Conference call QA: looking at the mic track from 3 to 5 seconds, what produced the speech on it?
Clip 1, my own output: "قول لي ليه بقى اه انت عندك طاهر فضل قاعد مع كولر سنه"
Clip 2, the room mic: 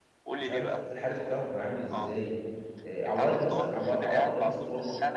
both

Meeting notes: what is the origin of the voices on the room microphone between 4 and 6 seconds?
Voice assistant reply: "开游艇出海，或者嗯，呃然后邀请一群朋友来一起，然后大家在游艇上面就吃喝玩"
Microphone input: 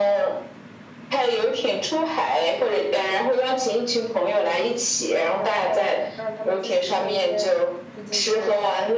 both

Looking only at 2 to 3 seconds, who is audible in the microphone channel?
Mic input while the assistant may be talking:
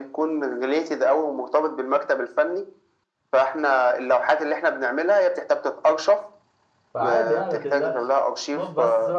echo only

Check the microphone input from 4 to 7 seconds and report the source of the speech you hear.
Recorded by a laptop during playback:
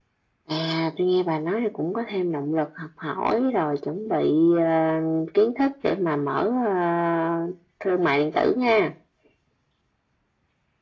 echo only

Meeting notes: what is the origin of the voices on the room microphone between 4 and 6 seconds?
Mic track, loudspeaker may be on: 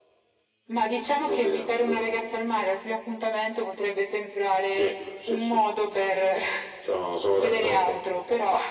echo only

